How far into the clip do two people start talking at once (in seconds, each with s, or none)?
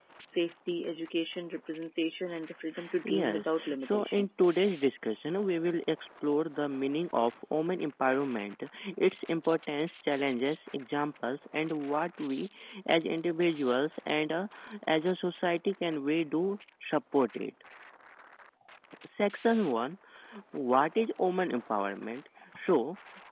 3.0 s